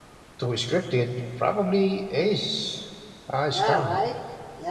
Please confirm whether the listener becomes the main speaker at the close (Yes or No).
Yes